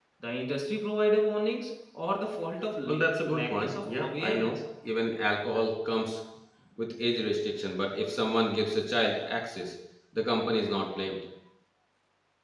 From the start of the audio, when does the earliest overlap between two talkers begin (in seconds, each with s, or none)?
2.9 s